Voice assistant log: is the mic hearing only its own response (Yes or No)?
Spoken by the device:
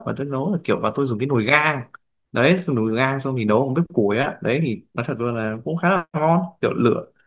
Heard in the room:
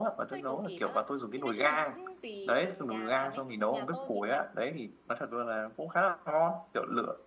No